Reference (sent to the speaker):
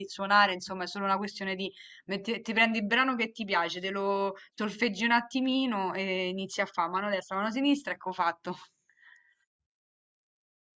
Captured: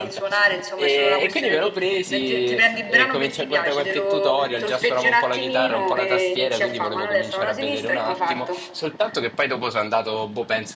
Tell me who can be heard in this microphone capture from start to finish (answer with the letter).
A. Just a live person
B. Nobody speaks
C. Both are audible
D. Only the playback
C